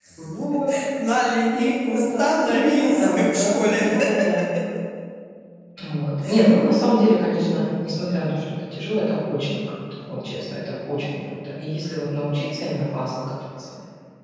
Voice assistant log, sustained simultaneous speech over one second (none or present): present